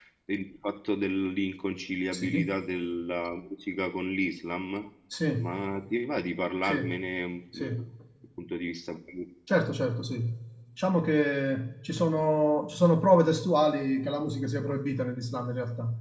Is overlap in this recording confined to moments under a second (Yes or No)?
Yes